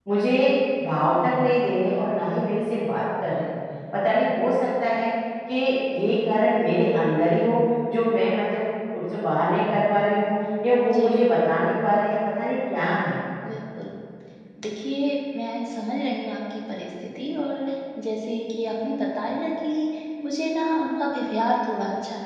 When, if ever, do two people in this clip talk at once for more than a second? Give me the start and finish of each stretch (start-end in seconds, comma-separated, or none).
none